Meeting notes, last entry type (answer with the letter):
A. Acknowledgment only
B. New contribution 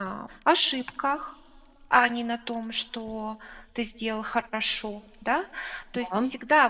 A